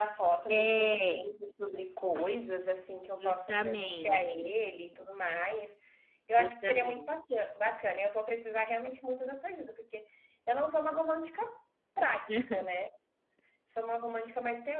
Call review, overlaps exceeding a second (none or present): present